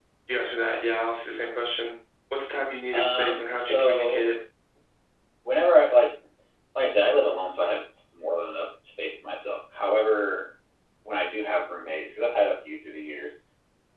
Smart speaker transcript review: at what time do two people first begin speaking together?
2.9 s

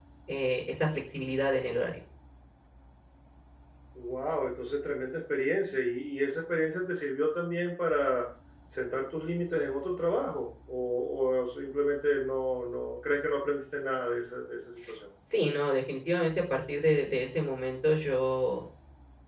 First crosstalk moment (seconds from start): none

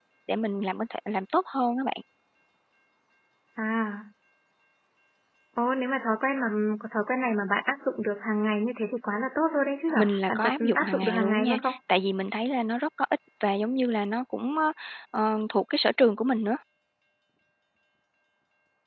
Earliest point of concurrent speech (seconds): 9.9 s

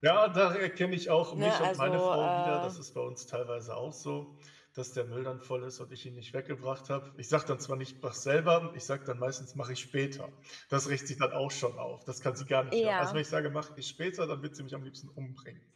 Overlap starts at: 1.4 s

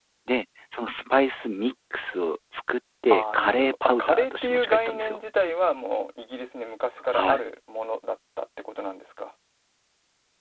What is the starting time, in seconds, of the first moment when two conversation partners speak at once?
3.1 s

